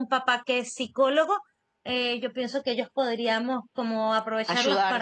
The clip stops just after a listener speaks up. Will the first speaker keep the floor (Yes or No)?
Yes